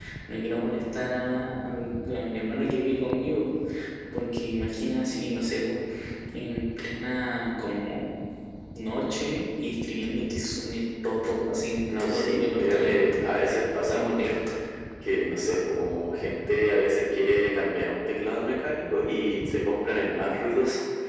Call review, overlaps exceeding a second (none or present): present